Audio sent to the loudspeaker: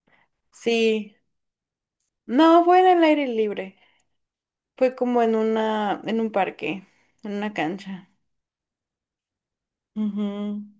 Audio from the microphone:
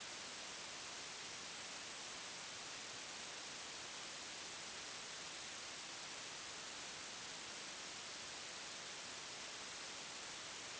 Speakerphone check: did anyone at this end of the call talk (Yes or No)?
No